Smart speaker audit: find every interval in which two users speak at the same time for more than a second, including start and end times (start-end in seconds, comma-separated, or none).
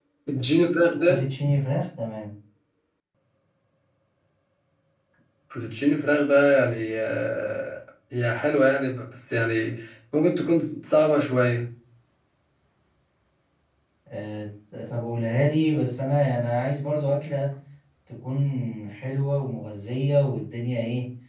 none